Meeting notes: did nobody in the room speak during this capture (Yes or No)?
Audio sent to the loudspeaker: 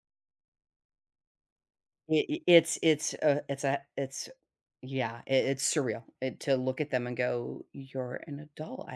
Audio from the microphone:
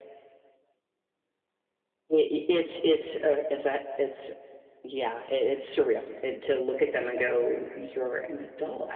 Yes